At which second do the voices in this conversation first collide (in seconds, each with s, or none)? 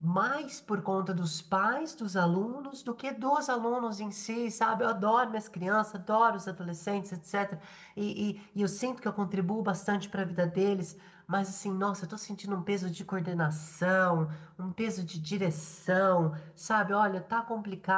none